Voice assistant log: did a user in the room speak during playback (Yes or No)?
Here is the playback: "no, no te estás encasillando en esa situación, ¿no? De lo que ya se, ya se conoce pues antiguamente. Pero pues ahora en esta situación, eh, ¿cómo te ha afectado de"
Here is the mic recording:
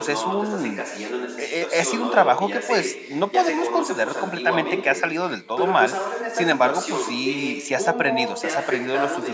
Yes